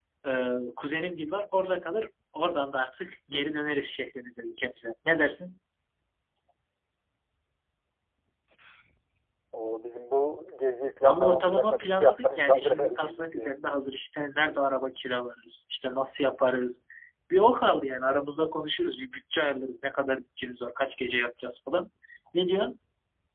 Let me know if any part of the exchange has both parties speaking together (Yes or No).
Yes